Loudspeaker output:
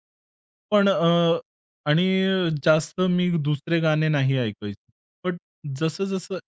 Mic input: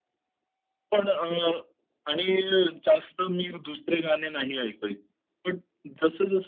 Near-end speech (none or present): none